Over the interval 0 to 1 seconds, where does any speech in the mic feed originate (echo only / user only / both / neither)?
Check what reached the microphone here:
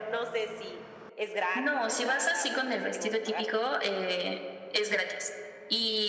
echo only